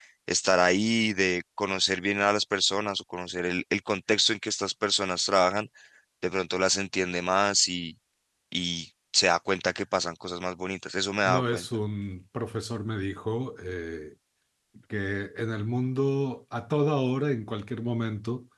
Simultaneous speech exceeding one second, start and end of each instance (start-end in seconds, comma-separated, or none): none